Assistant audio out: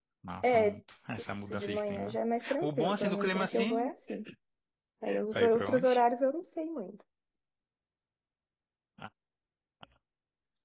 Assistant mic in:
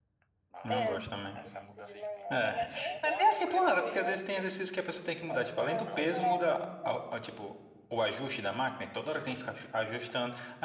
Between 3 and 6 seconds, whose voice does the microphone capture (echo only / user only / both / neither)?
both